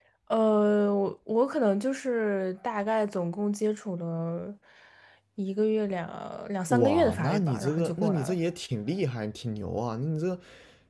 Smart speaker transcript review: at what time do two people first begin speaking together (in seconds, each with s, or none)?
6.7 s